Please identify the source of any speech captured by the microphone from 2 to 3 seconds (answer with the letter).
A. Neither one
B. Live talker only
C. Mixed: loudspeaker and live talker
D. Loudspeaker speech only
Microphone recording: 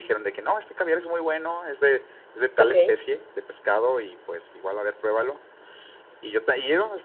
C